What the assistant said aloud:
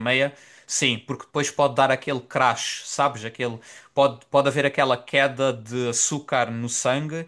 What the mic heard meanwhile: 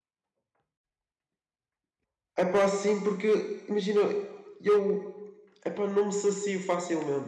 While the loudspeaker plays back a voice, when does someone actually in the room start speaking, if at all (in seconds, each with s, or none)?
2.4 s